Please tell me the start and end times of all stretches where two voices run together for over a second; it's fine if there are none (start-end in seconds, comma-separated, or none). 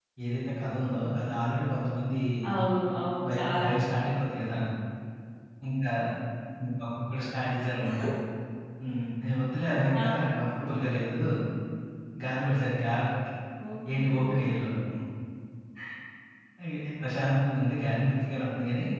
none